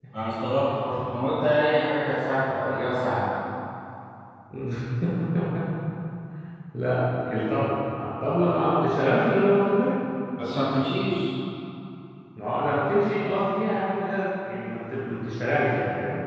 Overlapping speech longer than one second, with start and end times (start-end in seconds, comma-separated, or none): none